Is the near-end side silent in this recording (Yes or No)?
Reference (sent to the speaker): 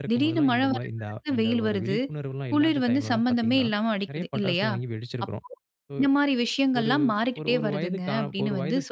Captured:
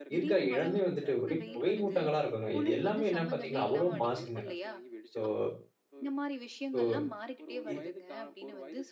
No